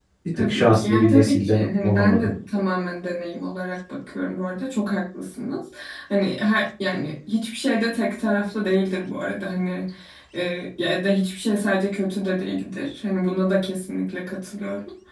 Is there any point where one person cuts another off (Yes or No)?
Yes